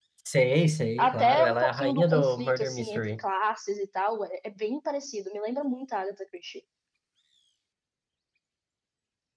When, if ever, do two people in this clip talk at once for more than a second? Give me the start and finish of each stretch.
1.0-3.0

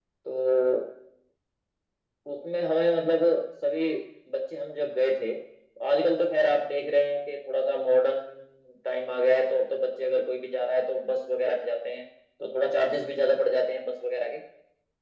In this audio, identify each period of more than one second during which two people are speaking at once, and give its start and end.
none

